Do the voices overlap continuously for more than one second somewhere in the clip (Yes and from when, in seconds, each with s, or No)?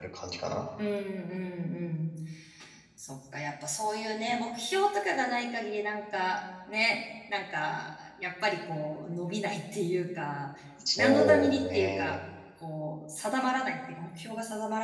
Yes, from 11.0 s